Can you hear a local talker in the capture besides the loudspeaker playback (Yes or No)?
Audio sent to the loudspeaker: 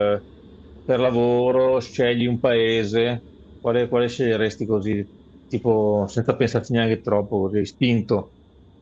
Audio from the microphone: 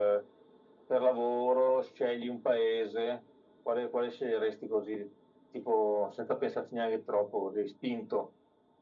No